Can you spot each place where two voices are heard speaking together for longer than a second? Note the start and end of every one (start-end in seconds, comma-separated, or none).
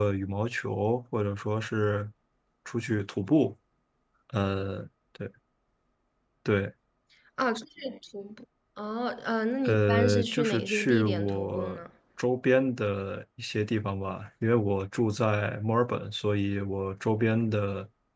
9.6-11.8